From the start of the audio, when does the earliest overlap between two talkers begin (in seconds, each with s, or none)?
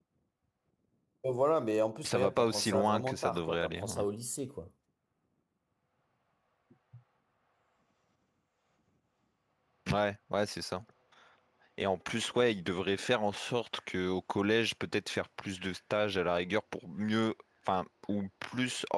2.1 s